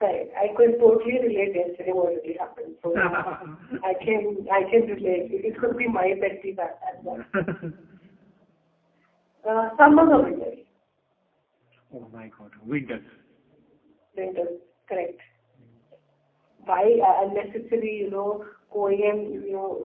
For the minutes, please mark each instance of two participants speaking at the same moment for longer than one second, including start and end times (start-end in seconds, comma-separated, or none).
4.7-5.9